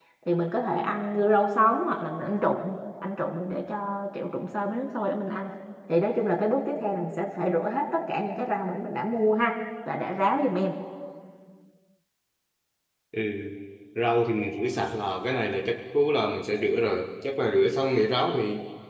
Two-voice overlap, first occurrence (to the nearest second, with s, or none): none